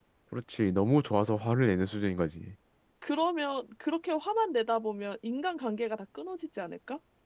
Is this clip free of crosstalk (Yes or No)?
Yes